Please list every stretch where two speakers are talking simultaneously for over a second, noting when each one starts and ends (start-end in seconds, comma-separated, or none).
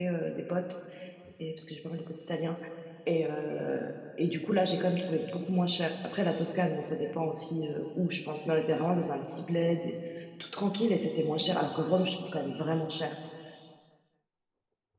none